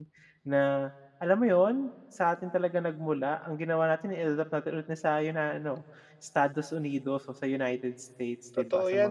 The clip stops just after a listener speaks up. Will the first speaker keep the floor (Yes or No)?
No